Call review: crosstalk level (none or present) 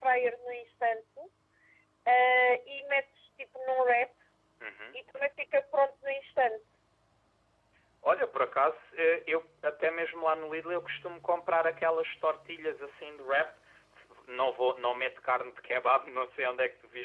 none